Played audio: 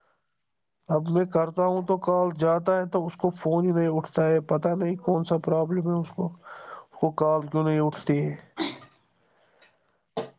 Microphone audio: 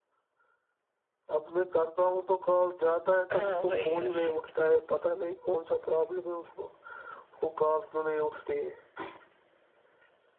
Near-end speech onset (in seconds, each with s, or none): 3.3 s